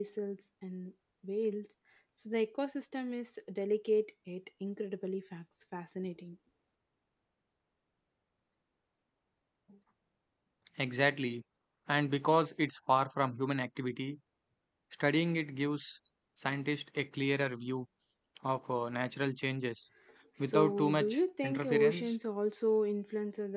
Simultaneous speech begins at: 20.4 s

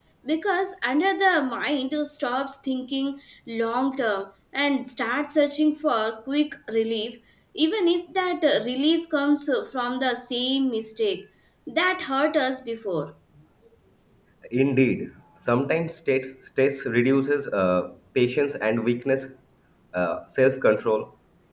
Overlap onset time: none

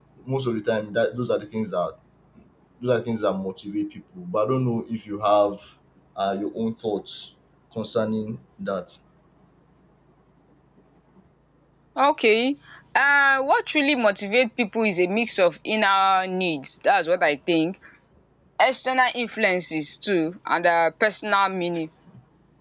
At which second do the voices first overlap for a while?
none

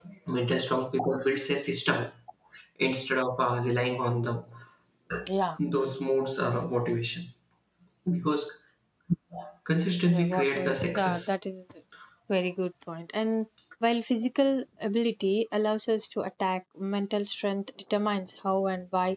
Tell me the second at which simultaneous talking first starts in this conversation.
10.1 s

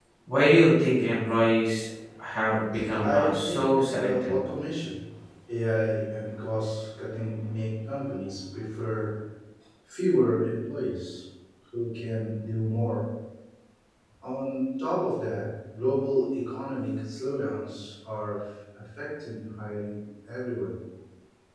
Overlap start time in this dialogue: 3.0 s

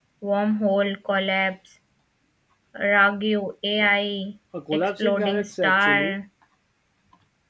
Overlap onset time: 4.5 s

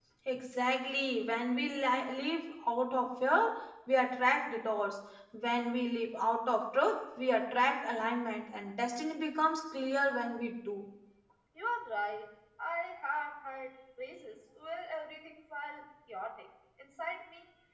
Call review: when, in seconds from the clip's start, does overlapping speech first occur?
none

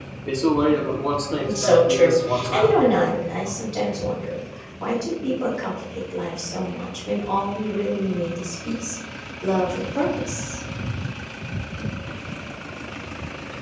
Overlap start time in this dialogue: 1.4 s

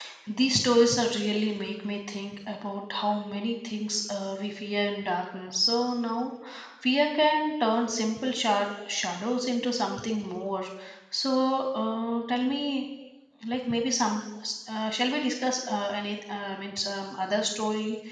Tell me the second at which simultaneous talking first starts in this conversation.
none

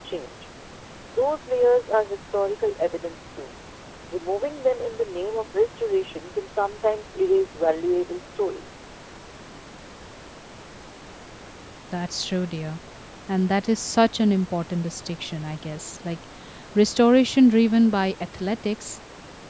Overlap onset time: none

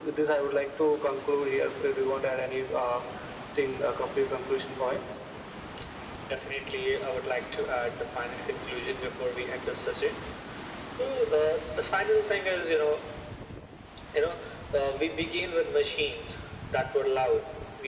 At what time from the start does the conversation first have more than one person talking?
none

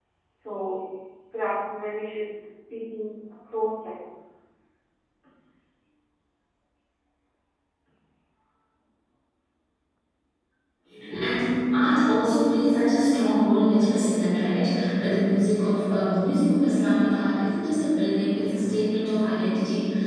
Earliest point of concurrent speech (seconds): none

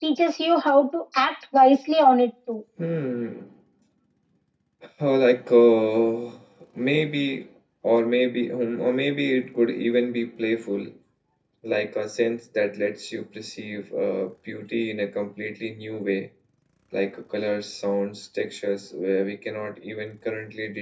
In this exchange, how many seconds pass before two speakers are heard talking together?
none

